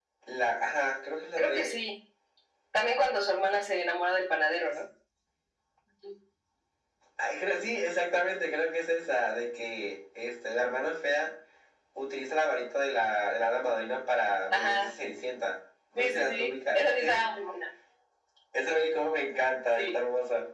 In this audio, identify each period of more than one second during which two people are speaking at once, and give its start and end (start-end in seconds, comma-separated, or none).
16.0-17.2